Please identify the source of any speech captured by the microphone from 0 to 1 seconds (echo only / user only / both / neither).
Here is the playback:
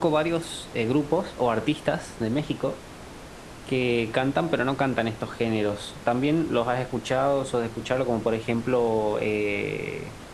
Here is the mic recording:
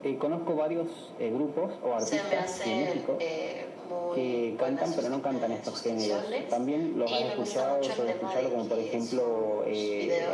echo only